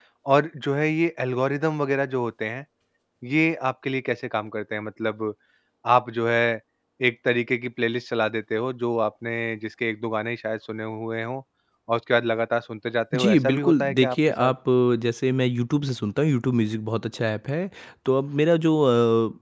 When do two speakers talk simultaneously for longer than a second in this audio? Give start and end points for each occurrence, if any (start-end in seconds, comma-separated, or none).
13.1-14.5